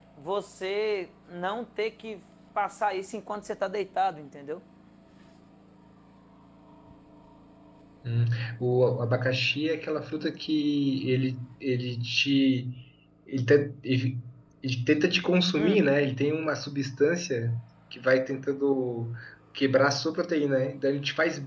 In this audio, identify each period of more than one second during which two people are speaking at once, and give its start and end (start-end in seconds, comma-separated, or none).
none